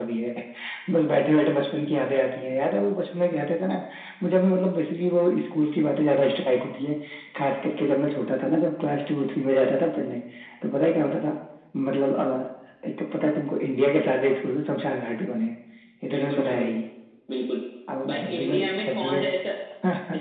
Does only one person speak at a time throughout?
No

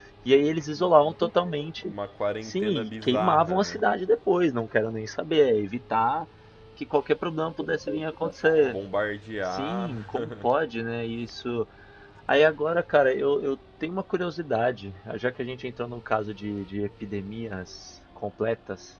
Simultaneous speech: Yes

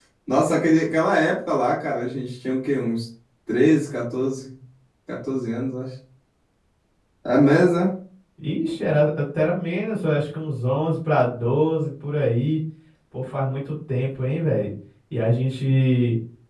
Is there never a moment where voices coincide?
Yes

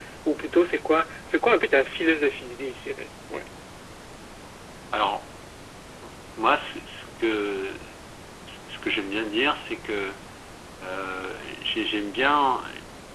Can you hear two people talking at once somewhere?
No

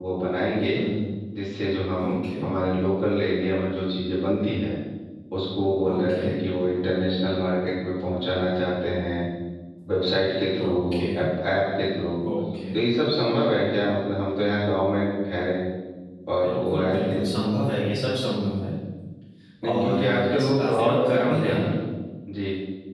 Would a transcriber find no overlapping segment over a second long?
No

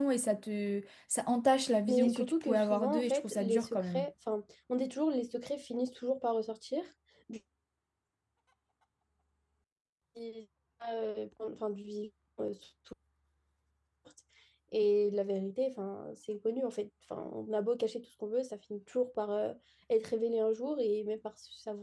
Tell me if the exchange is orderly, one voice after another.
No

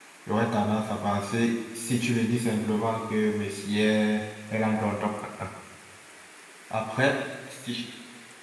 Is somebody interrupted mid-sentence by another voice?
No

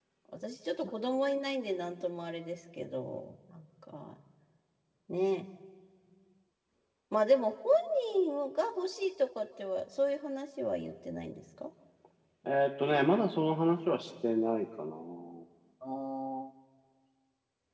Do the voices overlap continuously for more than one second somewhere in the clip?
No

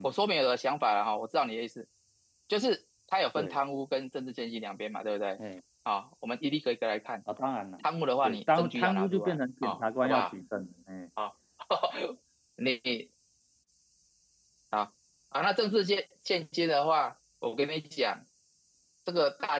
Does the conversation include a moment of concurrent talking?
Yes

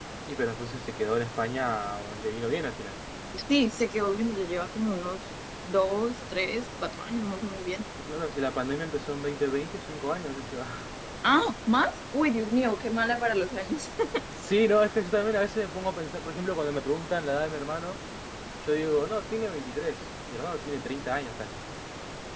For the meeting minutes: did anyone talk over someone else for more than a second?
No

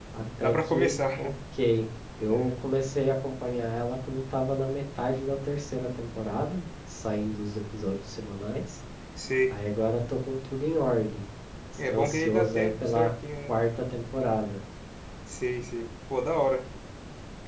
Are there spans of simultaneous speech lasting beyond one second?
Yes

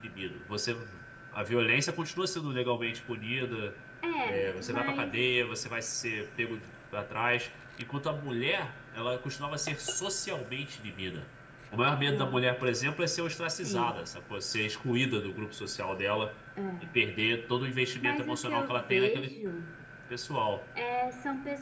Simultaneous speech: Yes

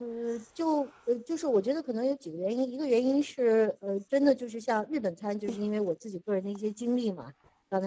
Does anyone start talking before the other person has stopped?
No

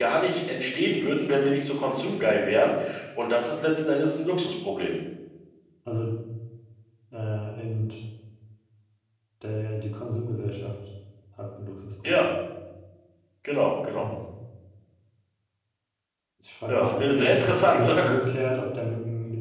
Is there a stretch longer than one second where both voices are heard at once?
Yes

